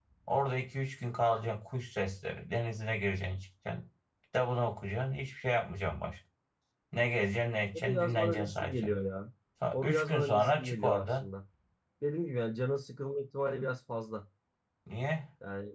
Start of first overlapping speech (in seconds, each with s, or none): 7.7 s